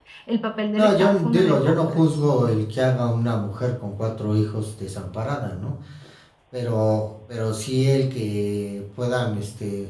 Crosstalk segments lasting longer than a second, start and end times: 0.8-2.2

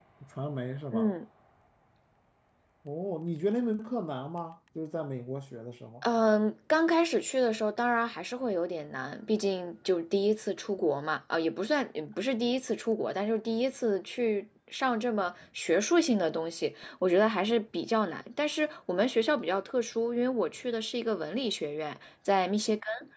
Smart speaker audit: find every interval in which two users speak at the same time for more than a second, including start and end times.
none

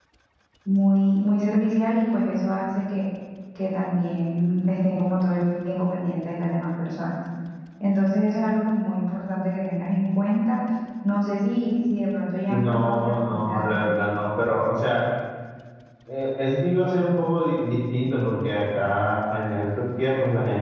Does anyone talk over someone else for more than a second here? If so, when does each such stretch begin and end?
12.5-13.9

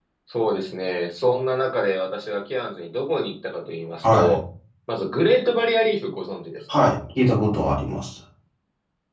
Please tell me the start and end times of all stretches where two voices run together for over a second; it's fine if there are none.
none

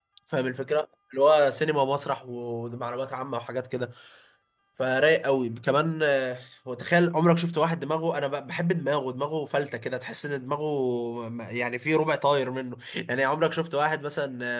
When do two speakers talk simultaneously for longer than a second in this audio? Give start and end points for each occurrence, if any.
none

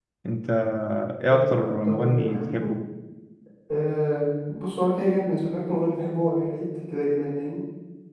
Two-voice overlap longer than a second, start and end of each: 1.3-2.8

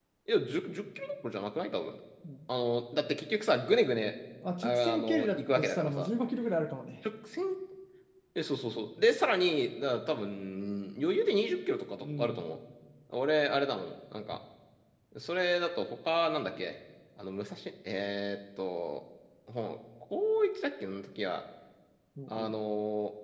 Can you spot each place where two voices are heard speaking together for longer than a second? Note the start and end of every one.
4.6-6.1

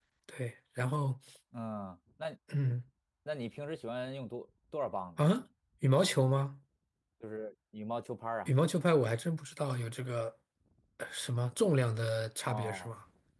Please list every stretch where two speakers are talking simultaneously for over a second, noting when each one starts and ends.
none

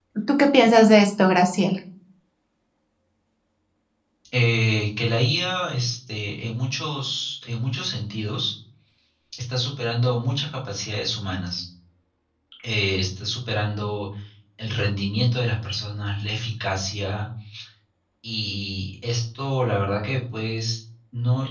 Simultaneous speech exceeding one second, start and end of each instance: none

